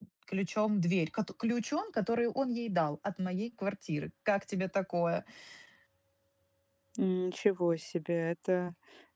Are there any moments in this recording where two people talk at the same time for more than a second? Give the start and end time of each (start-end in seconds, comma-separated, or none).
none